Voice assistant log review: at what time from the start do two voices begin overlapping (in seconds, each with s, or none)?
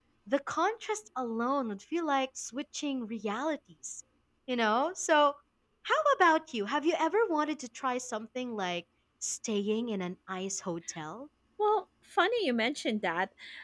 none